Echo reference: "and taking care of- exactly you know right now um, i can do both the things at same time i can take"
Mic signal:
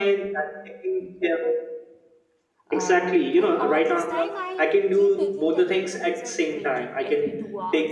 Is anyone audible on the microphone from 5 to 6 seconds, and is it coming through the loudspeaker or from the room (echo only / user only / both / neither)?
both